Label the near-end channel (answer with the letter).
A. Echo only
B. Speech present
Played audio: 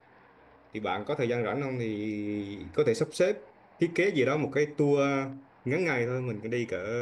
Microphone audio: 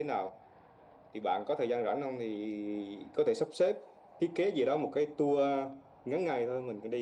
A